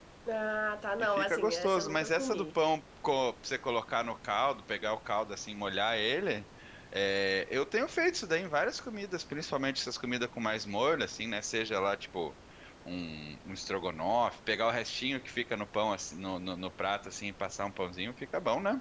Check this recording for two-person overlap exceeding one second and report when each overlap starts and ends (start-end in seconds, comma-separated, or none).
1.1-2.5